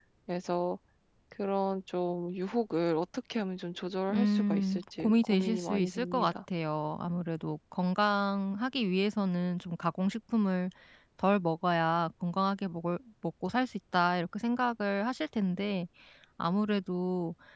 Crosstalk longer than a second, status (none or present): present